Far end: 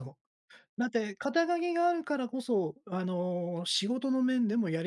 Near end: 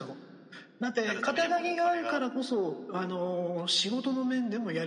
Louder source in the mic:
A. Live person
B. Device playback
B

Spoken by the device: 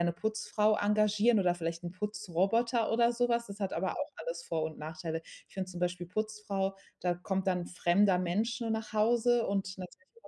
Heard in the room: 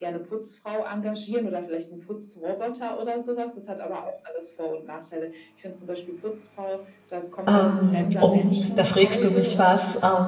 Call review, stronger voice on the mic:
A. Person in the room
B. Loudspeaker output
A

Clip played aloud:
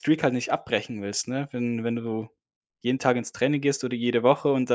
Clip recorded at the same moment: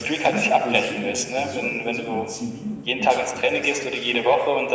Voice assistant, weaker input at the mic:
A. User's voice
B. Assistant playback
A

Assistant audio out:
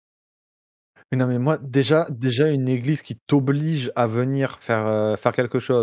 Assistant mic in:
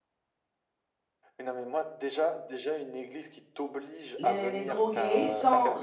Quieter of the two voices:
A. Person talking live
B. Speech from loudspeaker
B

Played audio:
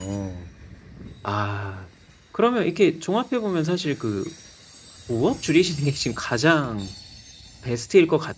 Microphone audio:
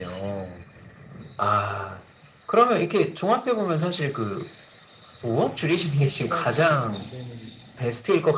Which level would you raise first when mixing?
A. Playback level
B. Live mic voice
B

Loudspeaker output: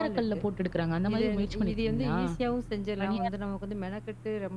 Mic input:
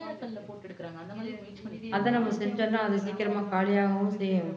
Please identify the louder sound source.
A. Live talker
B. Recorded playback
A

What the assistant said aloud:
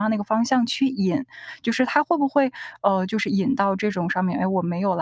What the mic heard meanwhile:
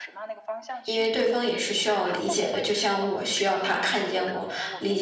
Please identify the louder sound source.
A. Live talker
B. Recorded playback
A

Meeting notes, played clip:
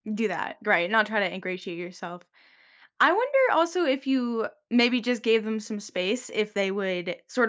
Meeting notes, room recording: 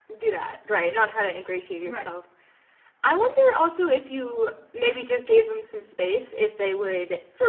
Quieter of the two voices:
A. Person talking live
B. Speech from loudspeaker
A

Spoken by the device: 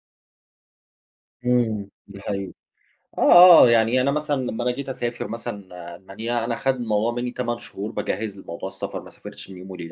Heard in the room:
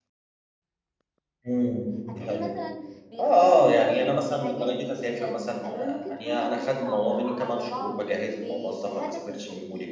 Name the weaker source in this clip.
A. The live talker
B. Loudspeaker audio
A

